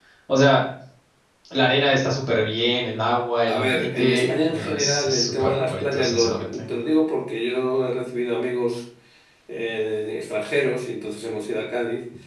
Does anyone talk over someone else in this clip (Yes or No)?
Yes